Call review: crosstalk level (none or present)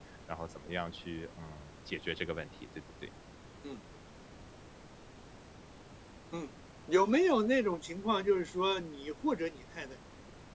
none